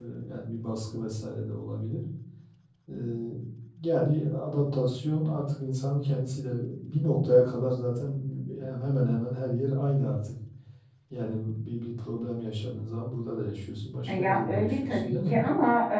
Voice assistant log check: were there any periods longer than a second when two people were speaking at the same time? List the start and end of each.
14.1-15.4

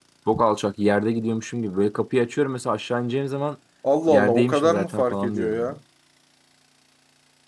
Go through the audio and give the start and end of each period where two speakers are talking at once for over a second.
4.1-5.8

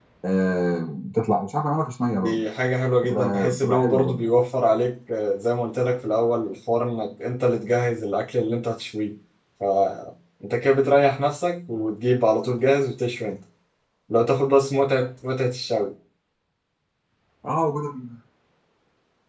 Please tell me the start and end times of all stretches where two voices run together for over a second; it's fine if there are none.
3.0-4.2

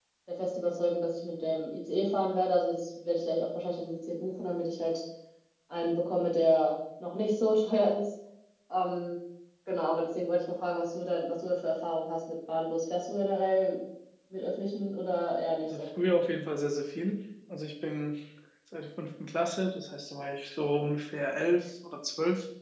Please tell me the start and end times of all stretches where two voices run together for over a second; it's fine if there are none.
none

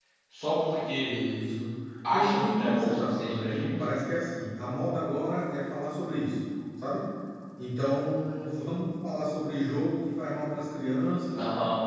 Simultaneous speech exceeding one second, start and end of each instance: 2.1-3.8

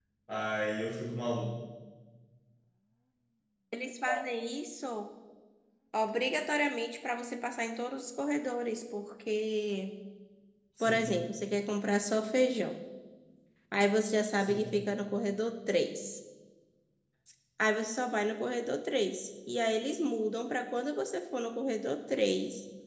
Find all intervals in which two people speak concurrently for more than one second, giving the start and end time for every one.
none

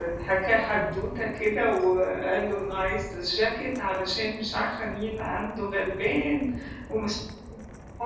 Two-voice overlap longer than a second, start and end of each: none

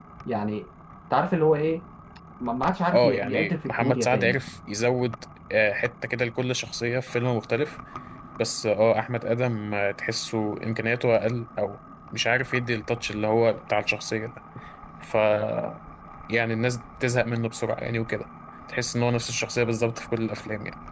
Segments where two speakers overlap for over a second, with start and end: 2.9-4.4

